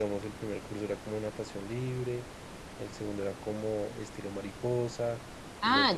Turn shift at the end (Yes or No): Yes